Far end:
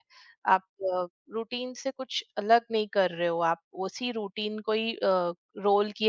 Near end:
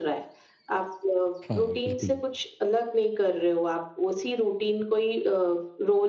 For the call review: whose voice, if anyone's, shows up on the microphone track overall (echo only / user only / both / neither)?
both